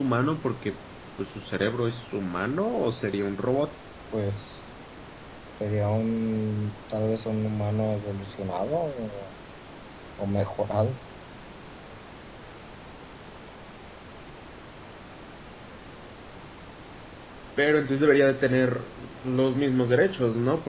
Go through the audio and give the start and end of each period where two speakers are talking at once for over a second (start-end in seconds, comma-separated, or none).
none